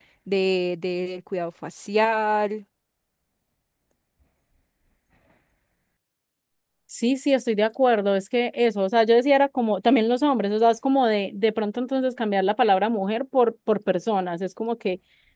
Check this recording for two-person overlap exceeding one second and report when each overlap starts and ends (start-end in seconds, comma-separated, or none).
none